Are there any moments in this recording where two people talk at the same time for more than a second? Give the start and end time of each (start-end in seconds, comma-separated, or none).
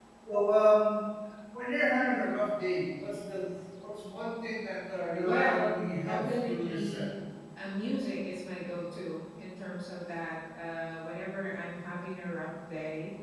5.2-7.1